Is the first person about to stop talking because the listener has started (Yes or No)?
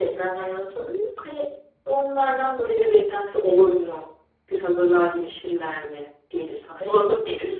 Yes